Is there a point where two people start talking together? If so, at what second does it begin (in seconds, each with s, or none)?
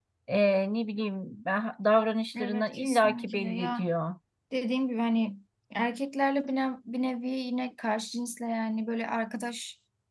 2.4 s